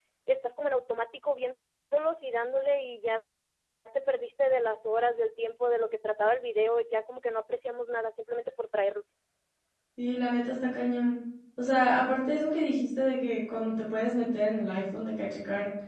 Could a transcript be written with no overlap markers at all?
Yes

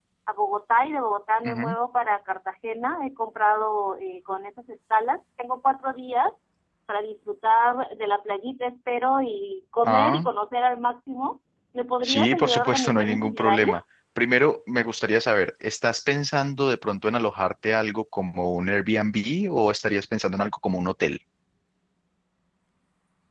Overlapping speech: Yes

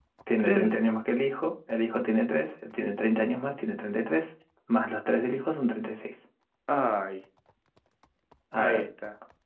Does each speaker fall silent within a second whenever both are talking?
Yes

